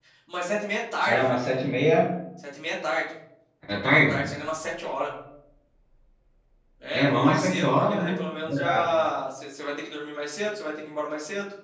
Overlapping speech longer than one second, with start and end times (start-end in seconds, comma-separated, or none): 6.9-8.2